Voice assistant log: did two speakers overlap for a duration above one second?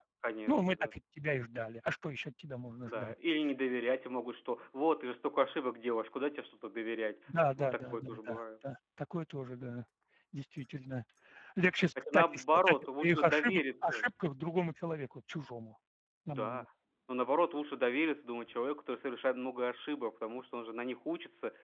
Yes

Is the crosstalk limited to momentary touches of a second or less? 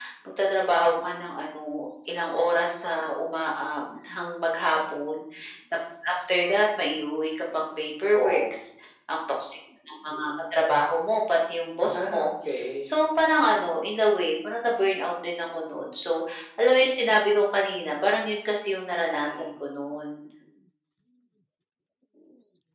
Yes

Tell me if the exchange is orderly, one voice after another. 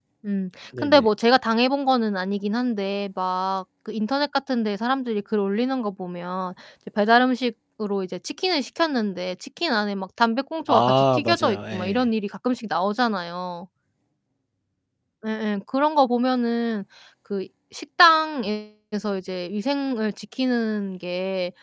No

